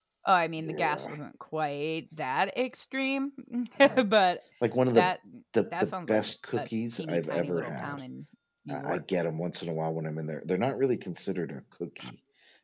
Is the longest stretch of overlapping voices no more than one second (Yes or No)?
No